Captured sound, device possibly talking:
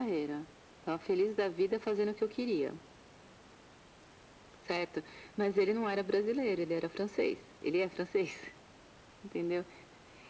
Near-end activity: none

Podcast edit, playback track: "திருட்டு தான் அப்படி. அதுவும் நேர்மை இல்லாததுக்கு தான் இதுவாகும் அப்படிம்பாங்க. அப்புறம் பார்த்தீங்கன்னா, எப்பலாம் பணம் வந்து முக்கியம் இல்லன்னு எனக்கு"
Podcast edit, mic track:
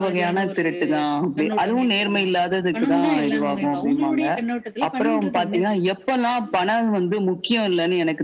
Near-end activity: present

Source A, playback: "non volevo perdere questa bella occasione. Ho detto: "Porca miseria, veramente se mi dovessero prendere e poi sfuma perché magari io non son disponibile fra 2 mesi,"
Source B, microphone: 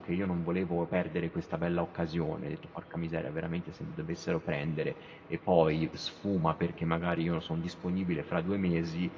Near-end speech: none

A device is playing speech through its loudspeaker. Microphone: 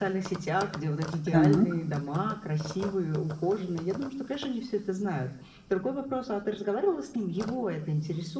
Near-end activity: present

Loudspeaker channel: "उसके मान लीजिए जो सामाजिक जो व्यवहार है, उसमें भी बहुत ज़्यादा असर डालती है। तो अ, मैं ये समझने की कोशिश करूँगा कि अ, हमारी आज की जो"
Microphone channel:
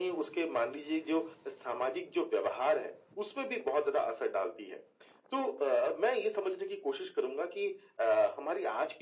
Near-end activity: none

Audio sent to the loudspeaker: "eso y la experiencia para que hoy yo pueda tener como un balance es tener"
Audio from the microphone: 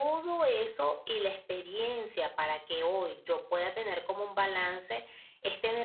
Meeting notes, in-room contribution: none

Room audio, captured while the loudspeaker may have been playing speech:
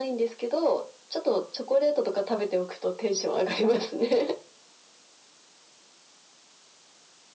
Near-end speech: none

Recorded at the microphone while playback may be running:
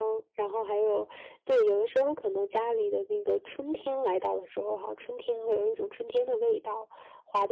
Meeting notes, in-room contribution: none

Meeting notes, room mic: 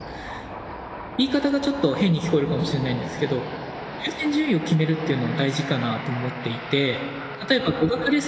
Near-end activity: present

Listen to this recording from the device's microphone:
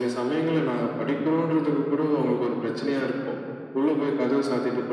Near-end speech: none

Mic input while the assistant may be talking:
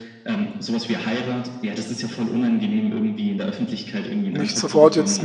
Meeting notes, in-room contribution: present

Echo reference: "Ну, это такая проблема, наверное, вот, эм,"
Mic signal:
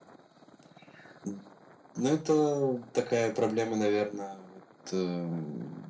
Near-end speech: none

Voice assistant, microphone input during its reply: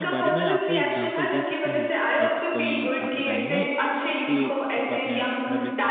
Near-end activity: present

